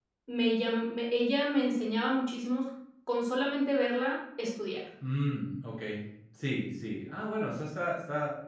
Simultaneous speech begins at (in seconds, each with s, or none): none